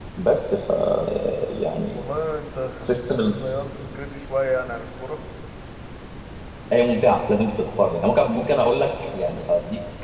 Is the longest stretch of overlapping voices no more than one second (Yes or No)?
Yes